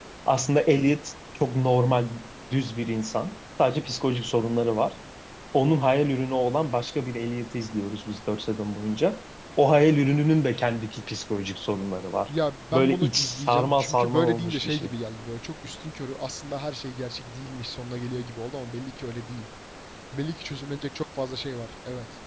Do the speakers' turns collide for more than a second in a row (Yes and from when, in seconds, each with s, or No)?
Yes, from 12.7 s